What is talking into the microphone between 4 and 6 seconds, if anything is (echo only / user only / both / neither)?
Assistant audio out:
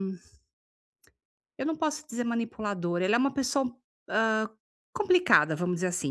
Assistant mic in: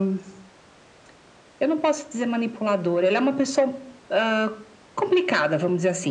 echo only